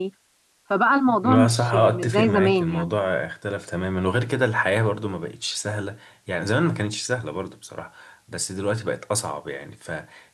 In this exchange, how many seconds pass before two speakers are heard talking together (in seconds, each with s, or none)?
1.2 s